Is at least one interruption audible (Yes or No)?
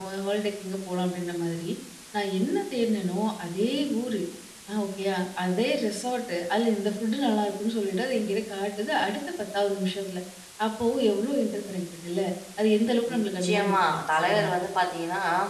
Yes